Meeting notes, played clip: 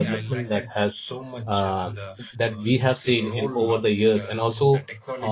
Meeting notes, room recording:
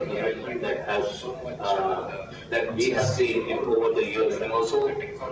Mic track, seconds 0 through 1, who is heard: echo only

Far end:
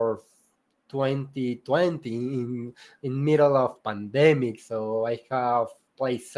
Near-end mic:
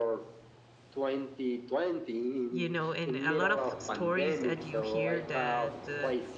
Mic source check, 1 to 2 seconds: echo only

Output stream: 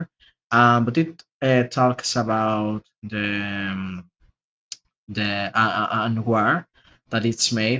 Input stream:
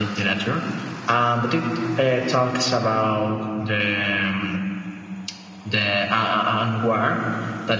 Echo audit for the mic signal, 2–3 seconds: echo only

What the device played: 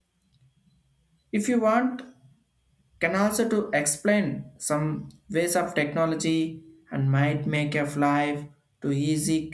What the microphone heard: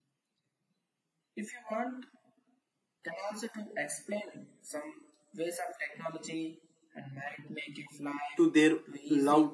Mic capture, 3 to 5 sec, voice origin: echo only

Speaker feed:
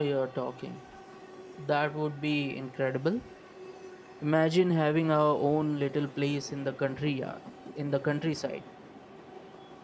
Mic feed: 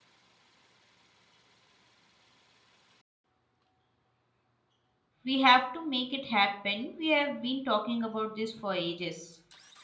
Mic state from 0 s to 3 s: neither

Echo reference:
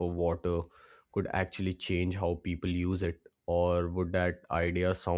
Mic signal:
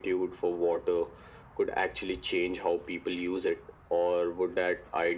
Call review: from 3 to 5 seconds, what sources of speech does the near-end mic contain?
echo only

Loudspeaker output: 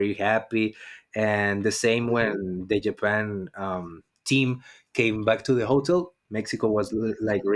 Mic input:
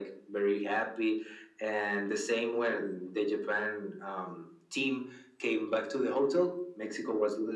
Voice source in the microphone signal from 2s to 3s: echo only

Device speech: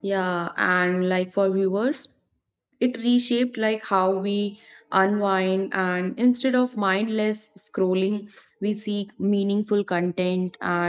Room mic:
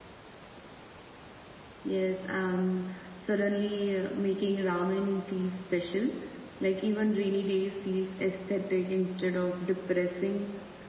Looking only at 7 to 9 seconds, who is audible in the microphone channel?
user only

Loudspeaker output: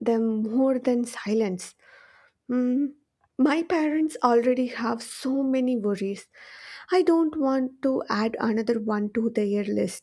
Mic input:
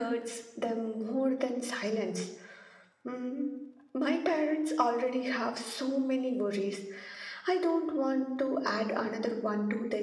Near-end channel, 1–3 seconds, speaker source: echo only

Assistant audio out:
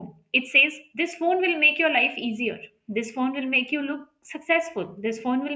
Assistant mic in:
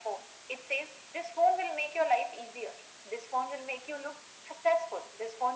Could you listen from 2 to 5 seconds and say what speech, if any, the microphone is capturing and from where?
echo only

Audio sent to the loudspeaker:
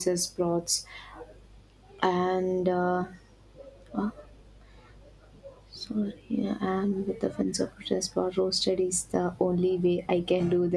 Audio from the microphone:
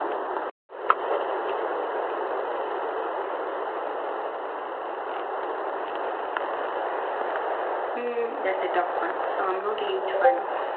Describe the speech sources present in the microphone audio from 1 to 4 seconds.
neither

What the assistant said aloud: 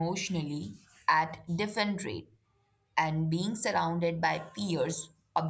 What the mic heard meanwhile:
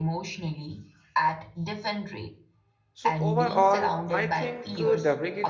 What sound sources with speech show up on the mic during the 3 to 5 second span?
both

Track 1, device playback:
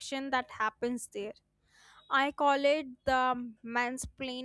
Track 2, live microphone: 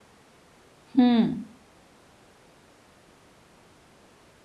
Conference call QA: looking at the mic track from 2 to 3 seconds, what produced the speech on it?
neither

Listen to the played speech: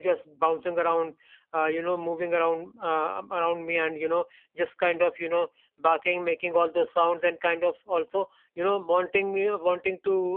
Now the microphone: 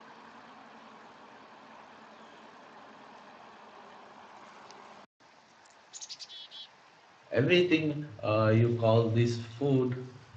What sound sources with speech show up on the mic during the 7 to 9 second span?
user only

